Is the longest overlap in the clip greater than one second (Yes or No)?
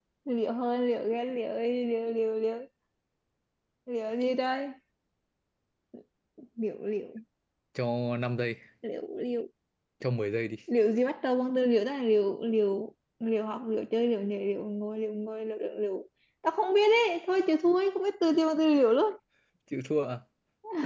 No